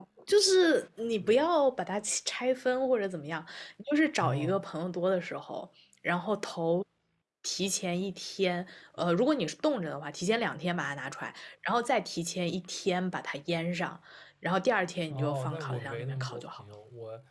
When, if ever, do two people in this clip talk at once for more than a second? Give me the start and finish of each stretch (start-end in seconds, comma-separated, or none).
15.1-16.6